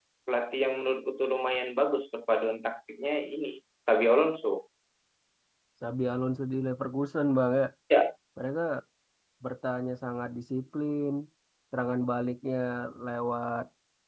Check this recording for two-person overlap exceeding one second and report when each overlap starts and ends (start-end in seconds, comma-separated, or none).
none